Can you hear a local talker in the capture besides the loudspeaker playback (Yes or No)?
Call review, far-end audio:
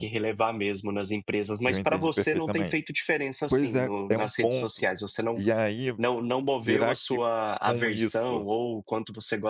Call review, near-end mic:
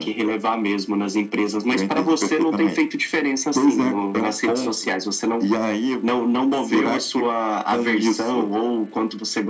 No